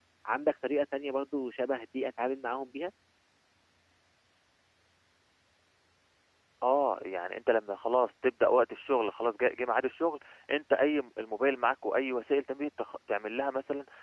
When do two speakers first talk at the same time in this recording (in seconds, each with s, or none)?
none